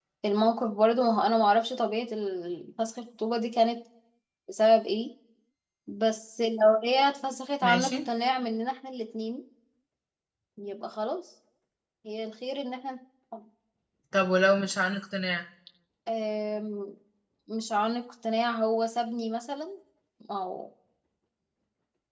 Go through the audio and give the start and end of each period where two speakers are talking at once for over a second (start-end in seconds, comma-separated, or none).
none